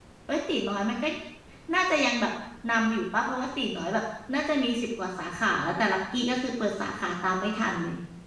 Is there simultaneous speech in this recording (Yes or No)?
No